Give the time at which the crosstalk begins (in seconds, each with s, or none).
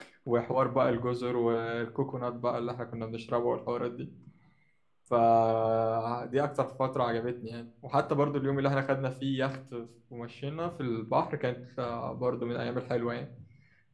none